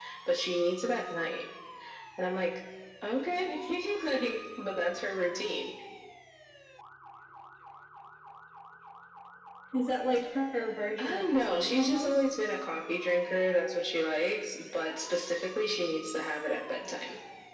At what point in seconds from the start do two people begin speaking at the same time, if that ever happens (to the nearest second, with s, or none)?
11 s